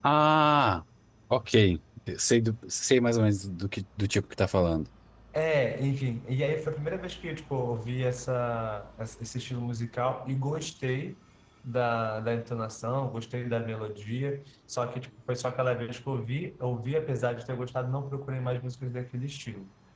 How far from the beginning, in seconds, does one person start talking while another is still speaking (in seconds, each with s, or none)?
none